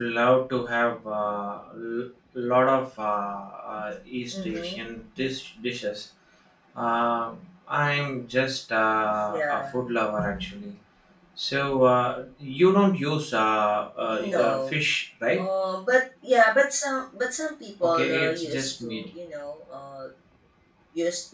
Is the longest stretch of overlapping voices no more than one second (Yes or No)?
No